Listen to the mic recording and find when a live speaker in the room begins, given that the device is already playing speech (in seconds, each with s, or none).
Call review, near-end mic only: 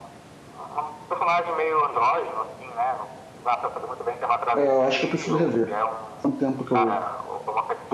4.5 s